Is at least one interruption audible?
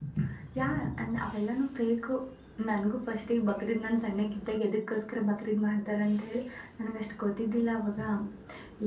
No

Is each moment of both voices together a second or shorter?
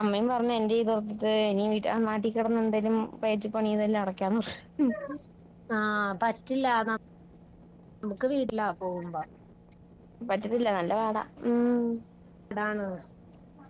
Yes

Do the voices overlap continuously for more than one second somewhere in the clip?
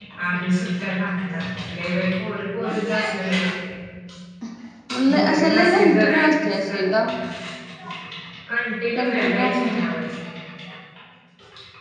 Yes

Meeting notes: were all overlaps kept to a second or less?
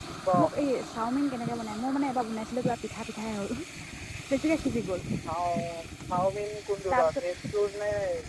Yes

